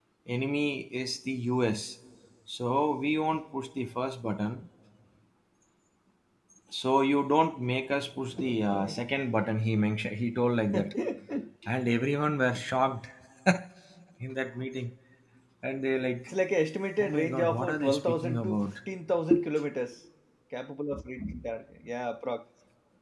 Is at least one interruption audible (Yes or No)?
Yes